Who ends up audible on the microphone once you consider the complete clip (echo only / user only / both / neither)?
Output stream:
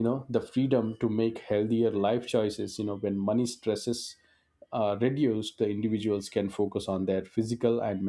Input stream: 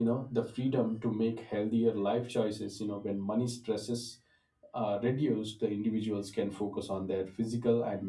echo only